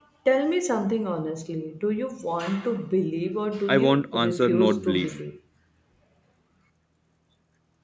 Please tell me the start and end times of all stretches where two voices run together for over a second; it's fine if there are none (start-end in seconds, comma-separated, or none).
3.7-5.1